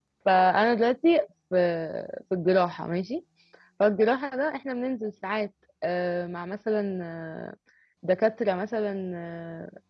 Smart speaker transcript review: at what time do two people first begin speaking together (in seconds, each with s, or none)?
none